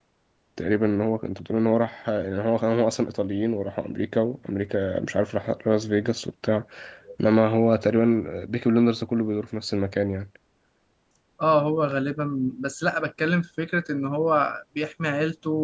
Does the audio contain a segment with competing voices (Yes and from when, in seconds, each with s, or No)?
No